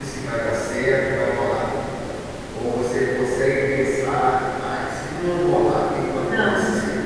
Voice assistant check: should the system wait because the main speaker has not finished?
No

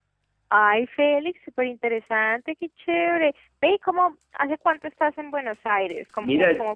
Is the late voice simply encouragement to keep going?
No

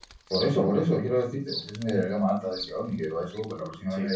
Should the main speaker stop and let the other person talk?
No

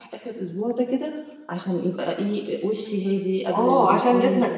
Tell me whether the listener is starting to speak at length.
Yes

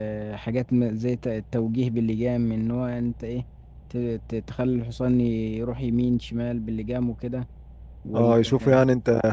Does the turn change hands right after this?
Yes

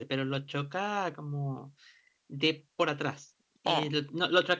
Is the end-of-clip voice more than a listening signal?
No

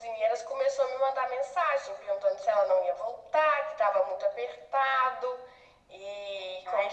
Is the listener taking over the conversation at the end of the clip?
Yes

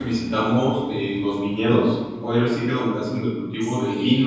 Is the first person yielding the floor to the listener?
No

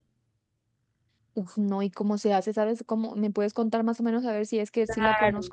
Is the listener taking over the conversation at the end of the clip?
Yes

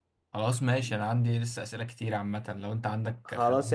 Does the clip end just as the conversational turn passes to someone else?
Yes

